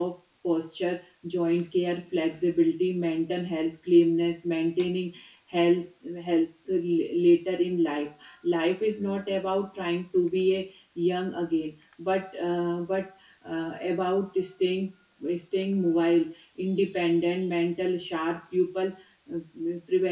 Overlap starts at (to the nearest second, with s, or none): none